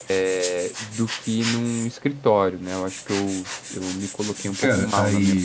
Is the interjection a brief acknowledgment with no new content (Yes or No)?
No